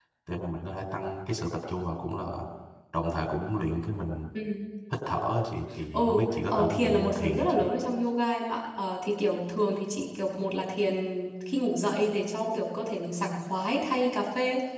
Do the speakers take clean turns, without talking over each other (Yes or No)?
No